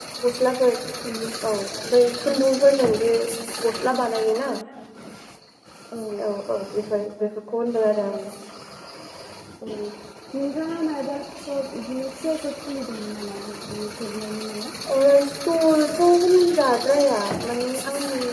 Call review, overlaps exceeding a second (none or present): none